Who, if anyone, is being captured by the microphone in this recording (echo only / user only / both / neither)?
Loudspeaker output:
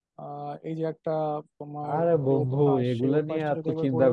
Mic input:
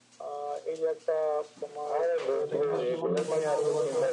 both